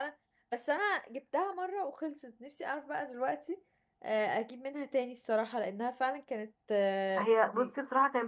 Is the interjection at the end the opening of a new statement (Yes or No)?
Yes